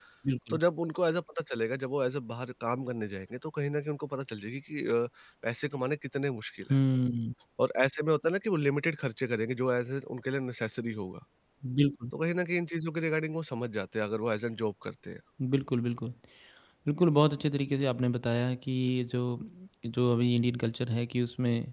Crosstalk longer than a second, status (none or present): none